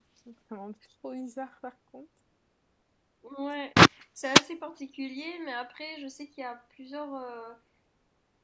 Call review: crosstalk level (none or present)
none